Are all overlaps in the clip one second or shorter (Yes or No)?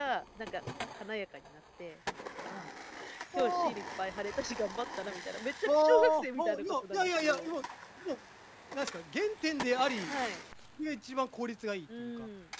No